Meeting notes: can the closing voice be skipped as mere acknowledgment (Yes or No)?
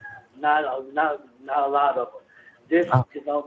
Yes